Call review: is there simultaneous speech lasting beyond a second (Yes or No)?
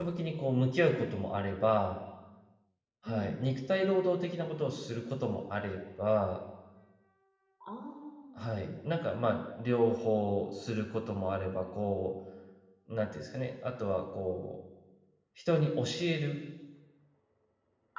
No